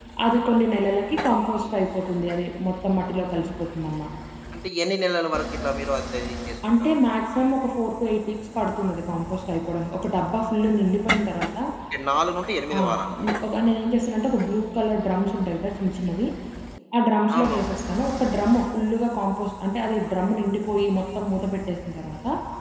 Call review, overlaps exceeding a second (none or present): none